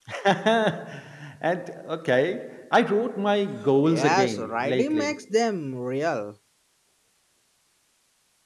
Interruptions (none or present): present